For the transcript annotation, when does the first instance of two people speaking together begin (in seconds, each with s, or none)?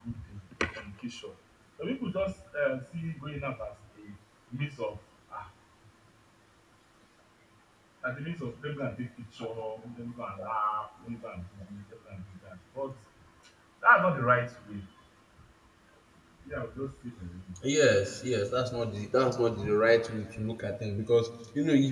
none